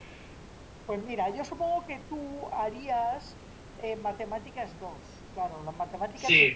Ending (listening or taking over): listening